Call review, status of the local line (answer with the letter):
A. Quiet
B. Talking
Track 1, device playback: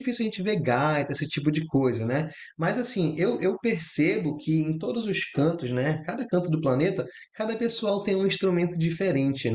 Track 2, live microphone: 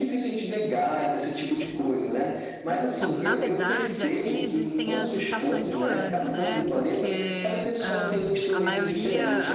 B